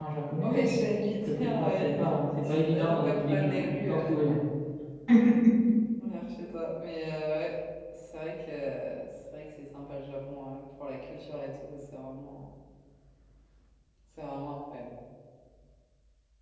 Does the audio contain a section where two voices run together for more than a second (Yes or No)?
Yes